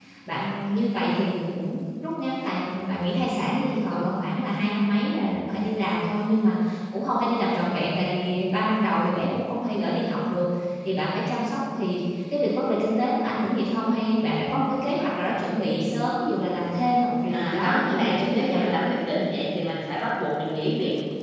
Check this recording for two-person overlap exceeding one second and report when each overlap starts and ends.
17.3-18.6

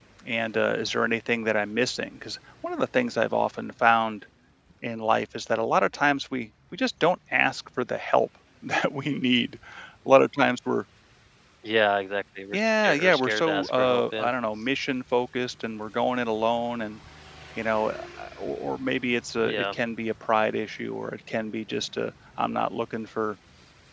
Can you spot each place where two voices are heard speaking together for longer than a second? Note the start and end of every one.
12.5-14.3

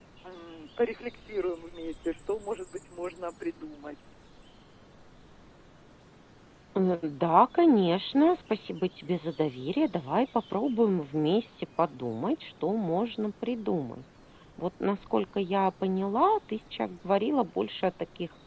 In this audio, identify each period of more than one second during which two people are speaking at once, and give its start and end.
none

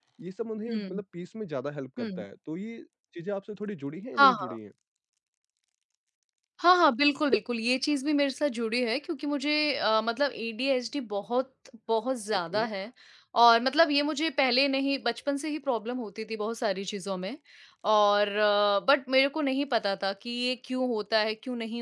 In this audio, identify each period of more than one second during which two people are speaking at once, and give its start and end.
none

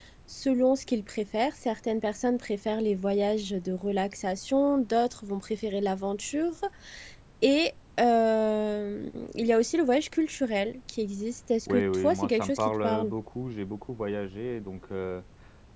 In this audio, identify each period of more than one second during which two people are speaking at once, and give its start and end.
11.7-13.1

